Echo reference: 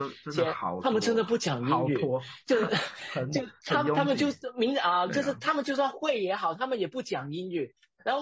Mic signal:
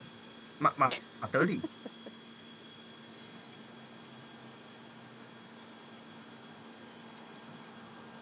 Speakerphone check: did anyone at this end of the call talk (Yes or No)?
Yes